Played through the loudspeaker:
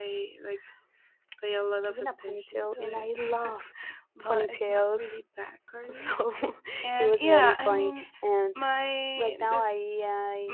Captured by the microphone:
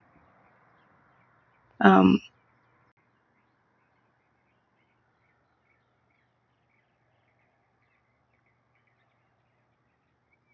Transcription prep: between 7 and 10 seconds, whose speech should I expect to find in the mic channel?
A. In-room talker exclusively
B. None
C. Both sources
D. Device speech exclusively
B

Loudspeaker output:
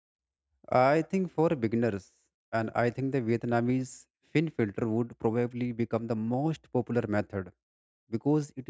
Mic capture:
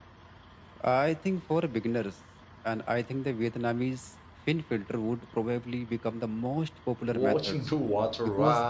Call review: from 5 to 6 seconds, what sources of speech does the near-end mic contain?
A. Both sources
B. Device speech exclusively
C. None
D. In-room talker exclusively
B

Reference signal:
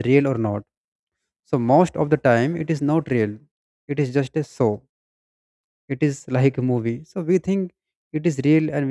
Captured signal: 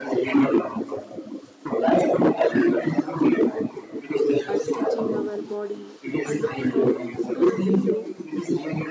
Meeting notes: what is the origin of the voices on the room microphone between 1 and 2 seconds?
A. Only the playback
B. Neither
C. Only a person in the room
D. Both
A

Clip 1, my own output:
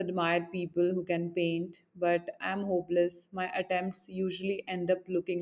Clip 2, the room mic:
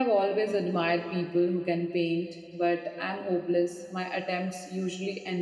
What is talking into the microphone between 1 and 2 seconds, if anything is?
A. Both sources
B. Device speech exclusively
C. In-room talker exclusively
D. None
B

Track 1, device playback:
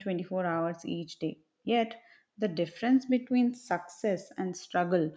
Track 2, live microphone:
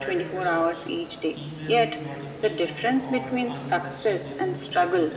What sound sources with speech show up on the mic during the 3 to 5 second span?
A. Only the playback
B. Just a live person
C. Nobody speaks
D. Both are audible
D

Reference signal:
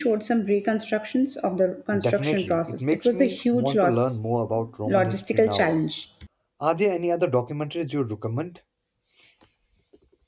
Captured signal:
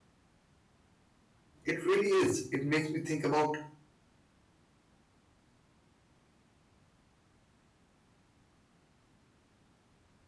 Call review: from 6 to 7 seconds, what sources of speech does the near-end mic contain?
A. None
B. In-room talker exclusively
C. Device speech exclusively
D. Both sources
A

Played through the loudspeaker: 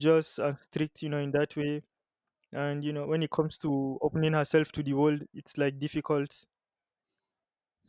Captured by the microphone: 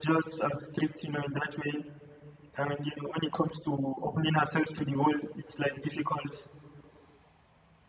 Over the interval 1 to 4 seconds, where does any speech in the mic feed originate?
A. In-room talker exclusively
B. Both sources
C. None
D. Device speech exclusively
D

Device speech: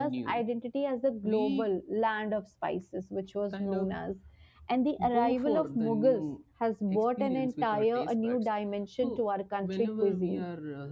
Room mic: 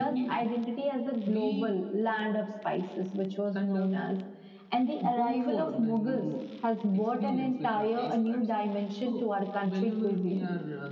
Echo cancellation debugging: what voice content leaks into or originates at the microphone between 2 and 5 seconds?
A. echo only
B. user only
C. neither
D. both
A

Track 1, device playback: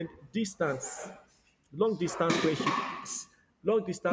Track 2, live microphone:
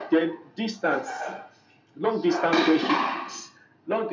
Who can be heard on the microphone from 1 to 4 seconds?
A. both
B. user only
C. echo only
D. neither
C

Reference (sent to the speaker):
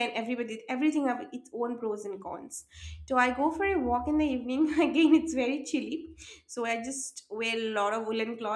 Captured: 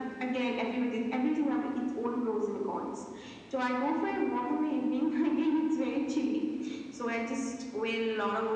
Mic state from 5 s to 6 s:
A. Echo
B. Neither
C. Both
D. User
A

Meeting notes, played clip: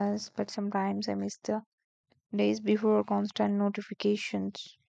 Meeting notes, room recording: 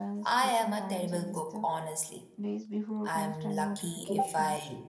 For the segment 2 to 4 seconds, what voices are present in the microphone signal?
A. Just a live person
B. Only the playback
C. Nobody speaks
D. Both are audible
D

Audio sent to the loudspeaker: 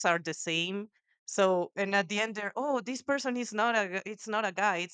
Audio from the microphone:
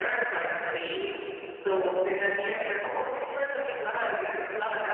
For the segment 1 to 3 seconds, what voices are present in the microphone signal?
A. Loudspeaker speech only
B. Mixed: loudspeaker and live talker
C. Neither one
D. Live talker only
A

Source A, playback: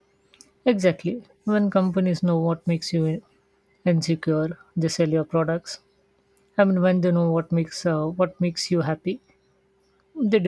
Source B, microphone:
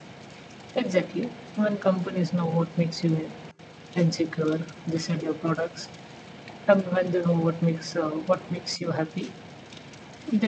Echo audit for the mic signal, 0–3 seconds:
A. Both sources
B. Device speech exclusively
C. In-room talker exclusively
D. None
B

